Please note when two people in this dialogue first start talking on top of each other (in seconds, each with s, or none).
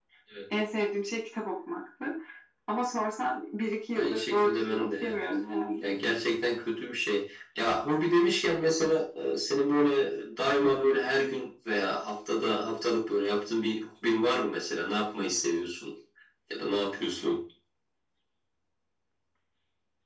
4.0 s